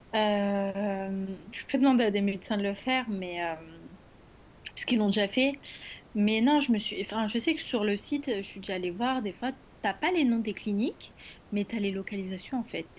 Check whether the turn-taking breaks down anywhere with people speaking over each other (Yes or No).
No